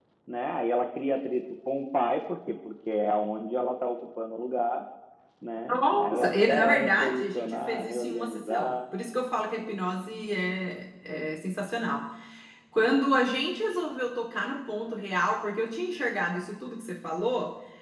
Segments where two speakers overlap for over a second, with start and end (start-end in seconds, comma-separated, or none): 6.0-8.8